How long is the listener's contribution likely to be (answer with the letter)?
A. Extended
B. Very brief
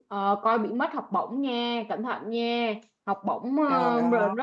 B